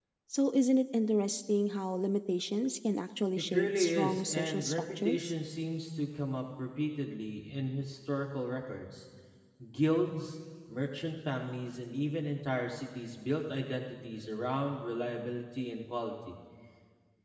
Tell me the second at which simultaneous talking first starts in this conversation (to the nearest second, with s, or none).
4 s